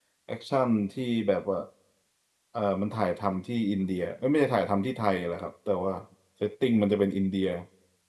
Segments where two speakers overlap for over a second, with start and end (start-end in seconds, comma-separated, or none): none